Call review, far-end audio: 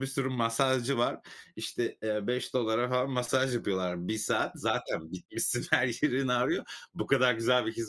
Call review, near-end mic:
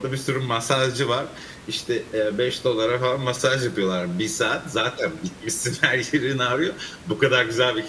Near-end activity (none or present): none